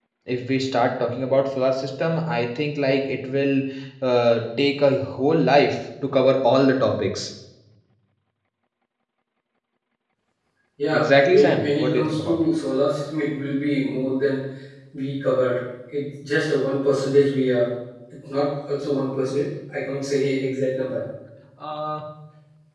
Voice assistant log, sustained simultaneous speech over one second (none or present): present